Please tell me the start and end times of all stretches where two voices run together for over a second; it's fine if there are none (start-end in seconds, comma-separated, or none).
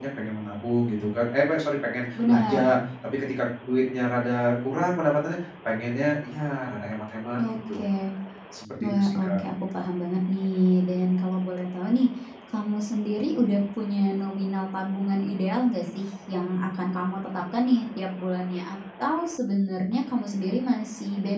none